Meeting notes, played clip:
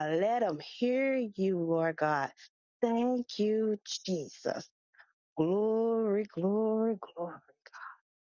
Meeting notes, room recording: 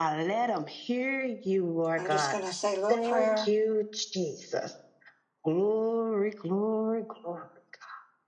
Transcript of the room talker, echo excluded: I'm just going to say a little prayer.

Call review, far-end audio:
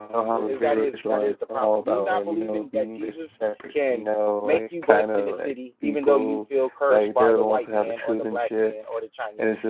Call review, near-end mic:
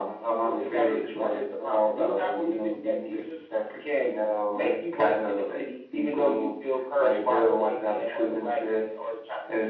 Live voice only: none

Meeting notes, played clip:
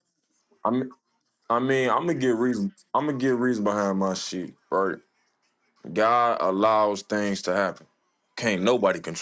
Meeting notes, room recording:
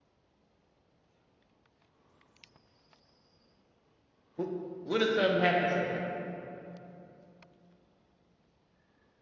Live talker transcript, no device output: Wh- What if something happened to her?

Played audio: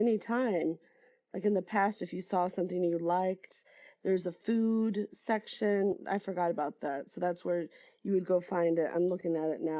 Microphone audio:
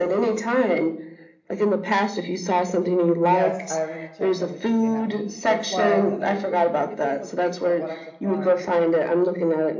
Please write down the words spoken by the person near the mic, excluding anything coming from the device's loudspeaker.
yes, I already checked everything. They have meat. That's why I did everything. Everything was based on what I could find

